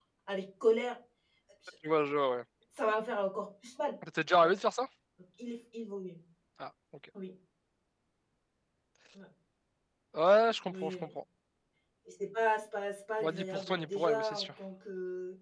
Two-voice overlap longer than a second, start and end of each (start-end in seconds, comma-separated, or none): 13.2-14.5